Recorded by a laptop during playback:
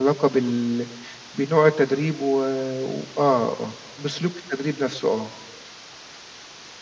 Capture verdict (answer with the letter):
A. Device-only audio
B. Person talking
B